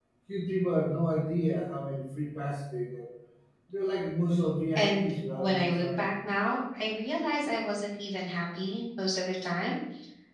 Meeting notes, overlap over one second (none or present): present